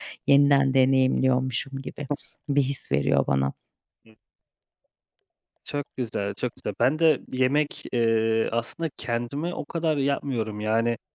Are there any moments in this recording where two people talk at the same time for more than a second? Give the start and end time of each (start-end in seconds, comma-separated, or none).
none